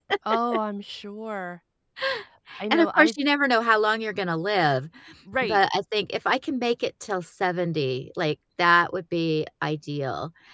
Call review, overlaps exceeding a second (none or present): none